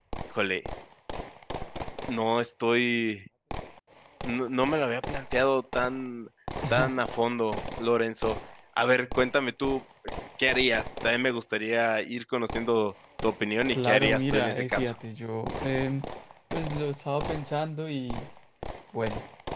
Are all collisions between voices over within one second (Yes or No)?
No